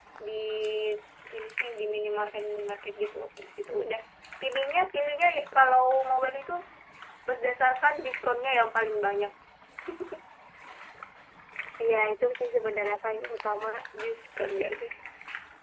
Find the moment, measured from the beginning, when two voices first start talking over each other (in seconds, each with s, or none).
none